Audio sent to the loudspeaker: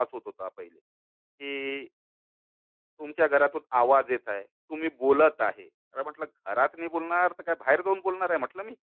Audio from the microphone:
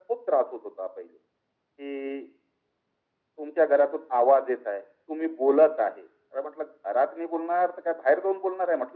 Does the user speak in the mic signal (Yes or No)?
No